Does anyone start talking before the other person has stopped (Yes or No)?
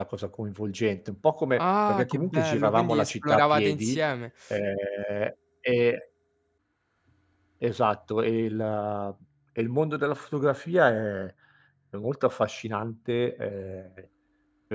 Yes